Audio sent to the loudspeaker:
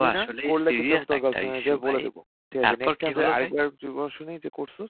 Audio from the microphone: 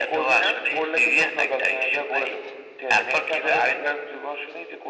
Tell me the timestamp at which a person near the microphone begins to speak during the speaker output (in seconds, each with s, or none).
none